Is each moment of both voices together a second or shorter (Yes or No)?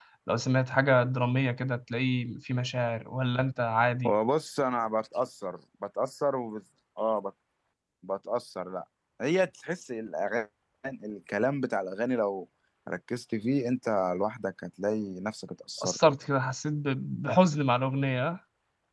Yes